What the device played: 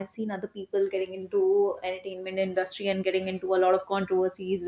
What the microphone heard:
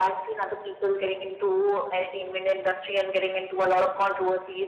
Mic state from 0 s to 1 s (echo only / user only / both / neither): echo only